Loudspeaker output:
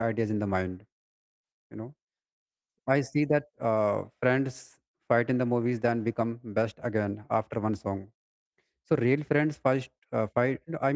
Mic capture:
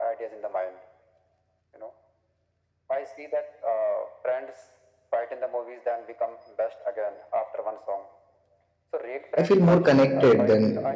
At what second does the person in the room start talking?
9 s

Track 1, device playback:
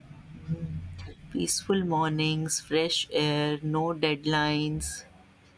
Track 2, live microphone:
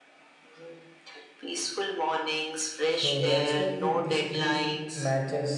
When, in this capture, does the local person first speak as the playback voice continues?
3 s

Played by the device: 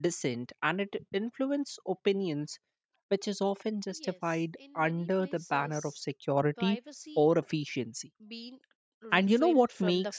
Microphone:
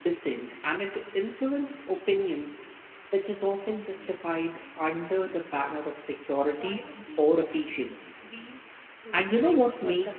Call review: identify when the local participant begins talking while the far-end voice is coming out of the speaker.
none

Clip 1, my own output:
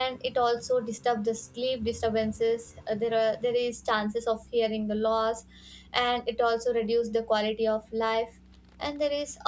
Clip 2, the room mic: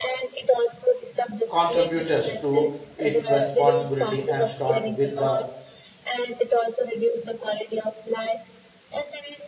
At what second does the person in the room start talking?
1 s

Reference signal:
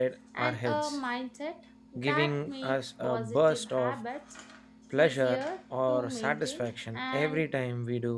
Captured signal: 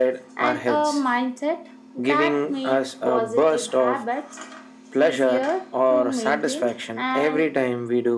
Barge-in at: none

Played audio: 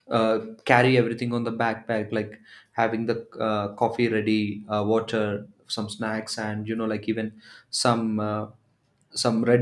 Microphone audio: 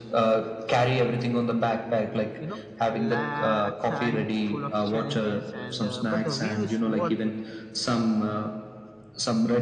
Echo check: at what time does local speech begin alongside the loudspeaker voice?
2 s

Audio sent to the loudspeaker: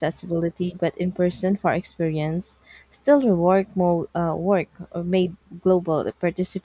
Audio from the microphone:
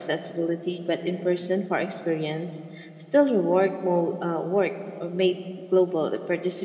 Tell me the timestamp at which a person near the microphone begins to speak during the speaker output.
none

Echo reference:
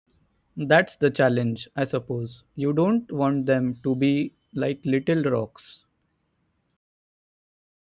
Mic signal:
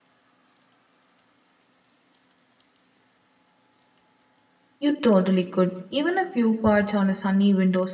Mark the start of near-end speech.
5 s

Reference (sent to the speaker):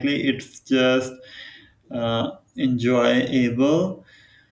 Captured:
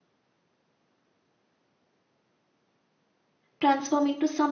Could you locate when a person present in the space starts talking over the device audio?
4 s

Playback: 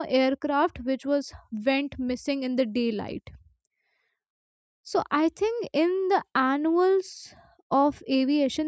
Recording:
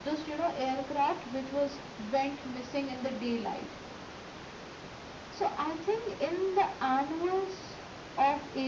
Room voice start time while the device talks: none

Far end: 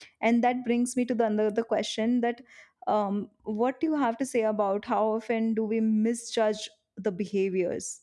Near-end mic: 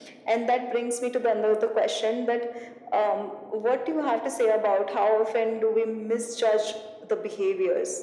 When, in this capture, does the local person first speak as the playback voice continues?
none

